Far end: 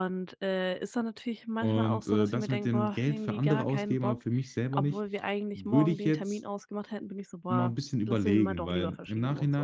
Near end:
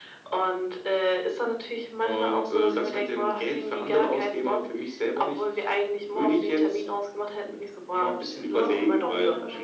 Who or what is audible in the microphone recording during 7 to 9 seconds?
both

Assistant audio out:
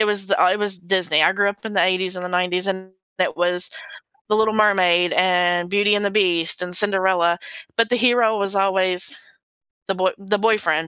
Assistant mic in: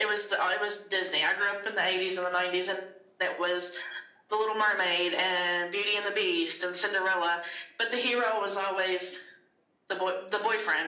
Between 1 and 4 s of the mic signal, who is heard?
echo only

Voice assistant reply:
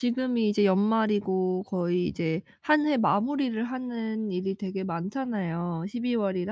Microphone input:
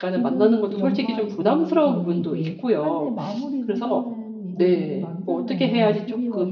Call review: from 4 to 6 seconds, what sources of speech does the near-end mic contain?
both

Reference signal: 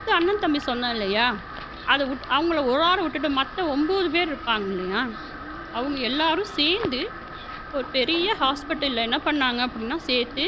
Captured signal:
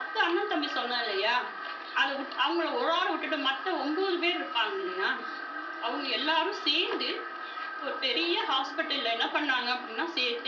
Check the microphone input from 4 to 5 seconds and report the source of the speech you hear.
echo only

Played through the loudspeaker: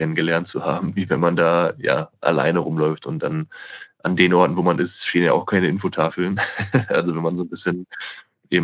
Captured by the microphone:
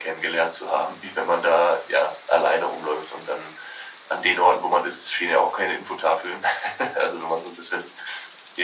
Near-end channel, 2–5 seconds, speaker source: echo only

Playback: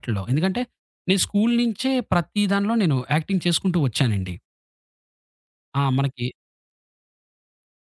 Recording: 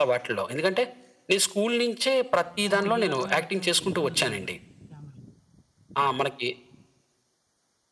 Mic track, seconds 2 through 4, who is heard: both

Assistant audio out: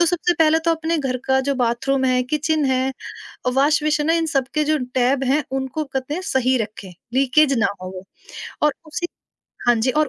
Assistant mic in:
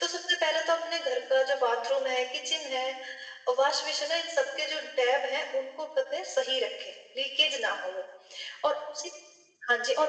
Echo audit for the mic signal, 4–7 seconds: echo only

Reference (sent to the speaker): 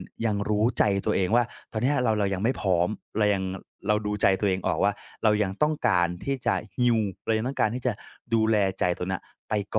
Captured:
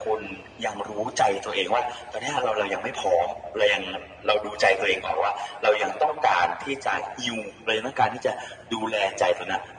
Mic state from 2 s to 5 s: echo only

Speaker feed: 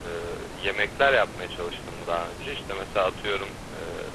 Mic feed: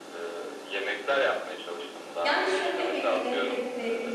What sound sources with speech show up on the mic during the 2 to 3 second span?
both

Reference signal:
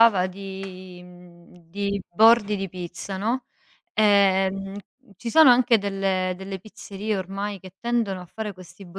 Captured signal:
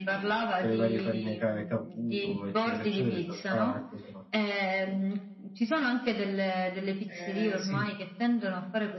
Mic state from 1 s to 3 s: both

